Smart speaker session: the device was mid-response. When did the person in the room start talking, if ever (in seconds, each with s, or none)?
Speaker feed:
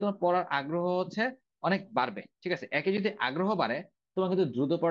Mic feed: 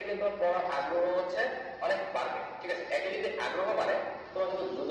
none